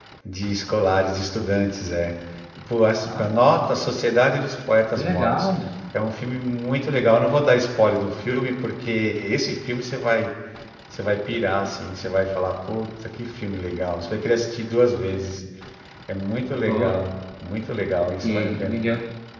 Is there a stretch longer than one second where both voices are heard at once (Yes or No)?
No